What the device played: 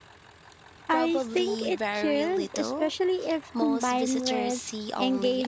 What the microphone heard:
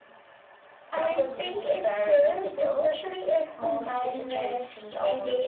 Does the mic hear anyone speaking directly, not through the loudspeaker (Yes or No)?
No